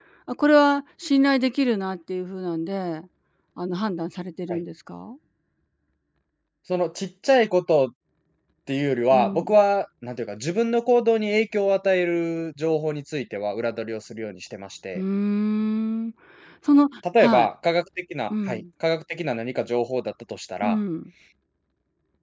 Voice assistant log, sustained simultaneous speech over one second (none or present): none